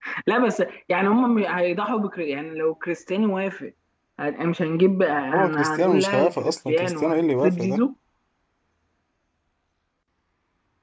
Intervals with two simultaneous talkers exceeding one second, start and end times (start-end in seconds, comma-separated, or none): 5.3-7.8